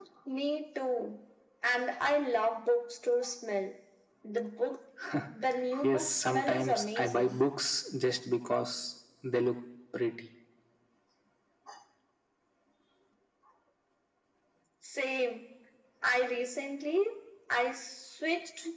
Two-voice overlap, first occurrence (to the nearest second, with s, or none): 6 s